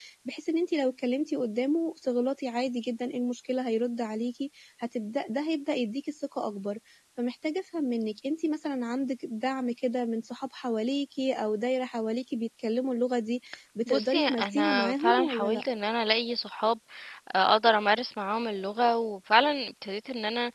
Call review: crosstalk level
present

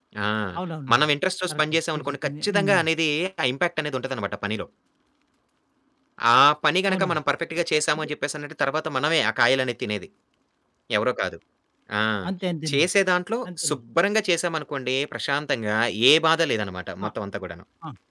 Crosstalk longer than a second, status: present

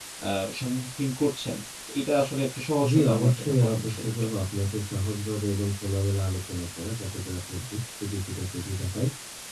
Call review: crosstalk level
present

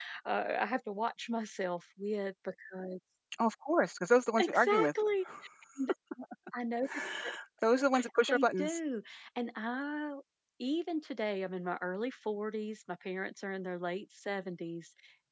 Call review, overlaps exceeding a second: none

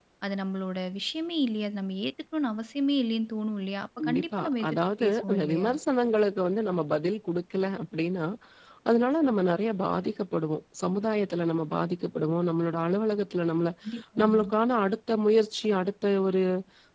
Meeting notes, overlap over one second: present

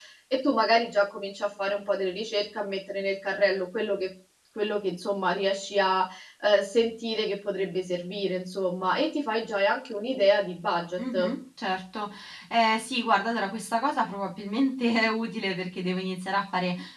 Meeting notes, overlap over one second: none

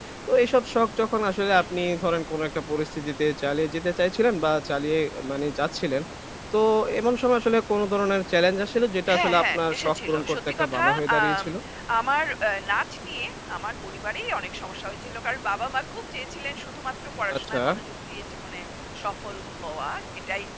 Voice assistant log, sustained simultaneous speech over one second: present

